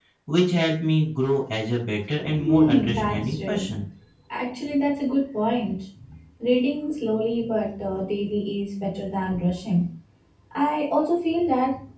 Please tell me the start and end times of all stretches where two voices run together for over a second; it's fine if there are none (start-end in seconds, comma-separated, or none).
2.3-3.7